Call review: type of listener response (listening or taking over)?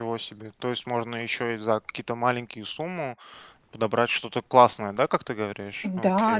taking over